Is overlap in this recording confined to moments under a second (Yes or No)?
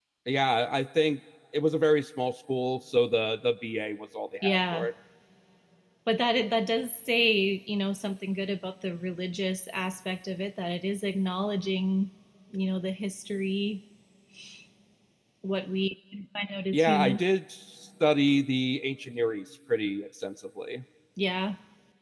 Yes